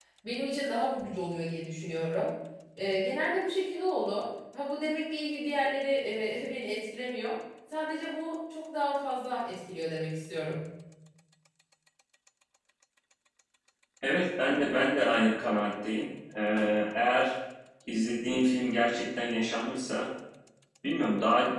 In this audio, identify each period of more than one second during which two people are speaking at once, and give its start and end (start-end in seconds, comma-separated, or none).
none